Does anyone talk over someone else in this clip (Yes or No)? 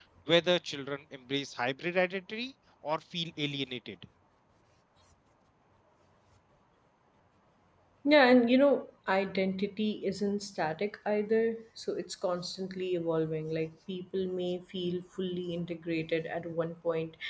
No